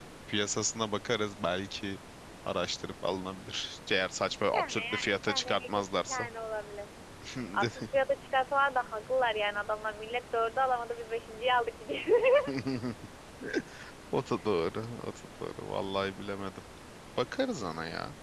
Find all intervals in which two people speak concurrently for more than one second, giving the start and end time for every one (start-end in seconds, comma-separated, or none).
4.3-6.3